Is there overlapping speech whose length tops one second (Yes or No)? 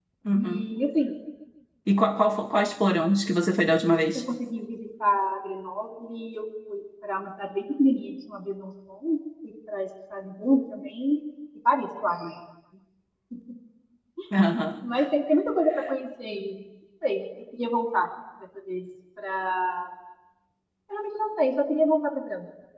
No